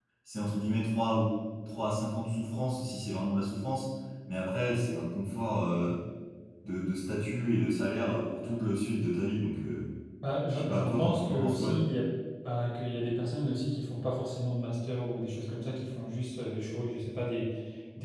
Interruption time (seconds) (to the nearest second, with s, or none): 11 s